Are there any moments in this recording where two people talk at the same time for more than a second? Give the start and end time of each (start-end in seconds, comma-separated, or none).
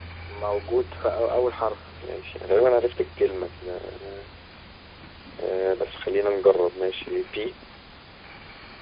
none